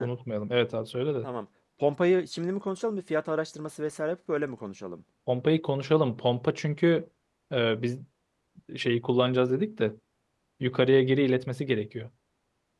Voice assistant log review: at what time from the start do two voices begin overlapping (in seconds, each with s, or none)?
none